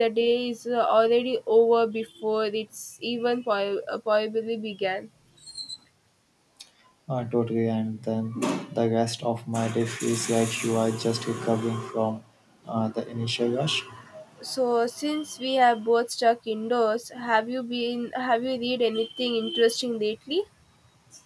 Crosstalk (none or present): none